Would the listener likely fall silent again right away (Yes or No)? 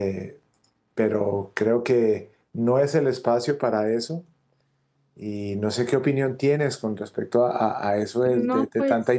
Yes